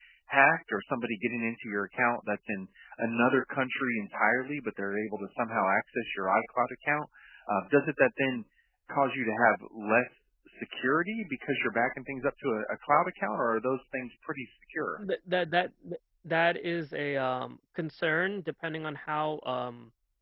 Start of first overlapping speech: none

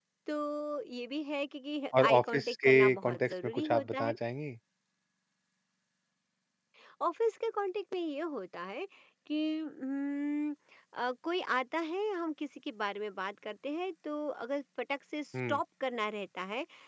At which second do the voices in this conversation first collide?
1.9 s

